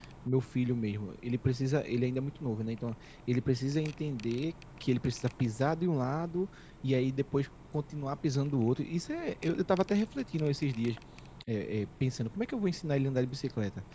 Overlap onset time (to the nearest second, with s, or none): none